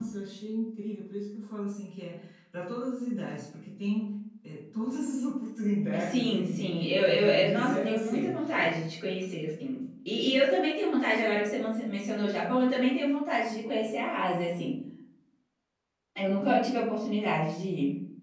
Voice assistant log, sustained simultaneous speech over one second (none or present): present